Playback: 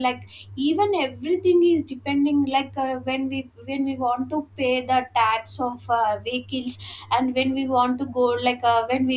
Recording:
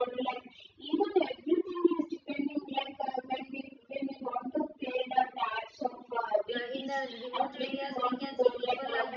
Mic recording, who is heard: both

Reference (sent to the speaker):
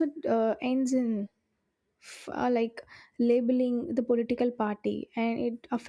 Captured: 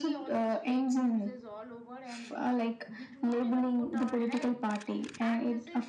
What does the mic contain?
both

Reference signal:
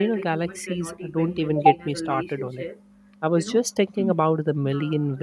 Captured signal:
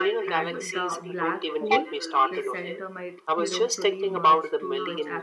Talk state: both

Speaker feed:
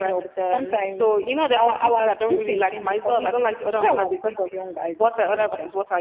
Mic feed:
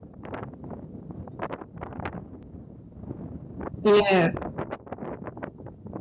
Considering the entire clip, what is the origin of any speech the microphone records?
user only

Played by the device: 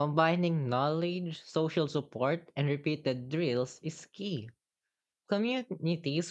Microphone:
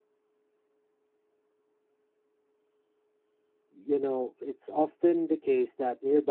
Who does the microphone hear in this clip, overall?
user only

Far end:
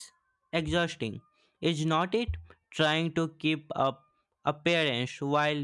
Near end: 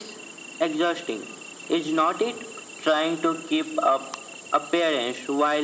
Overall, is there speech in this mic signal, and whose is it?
echo only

